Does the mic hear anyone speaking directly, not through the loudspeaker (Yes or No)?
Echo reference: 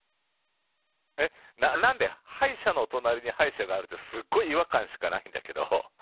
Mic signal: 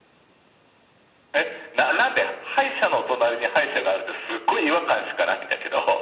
No